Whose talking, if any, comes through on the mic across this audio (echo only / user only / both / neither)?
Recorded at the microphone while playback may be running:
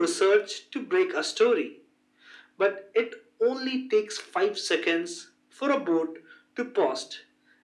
echo only